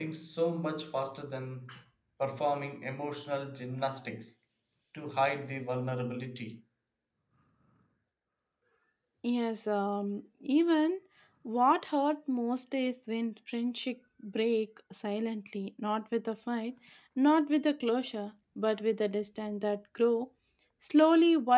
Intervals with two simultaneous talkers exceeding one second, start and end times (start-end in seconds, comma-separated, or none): none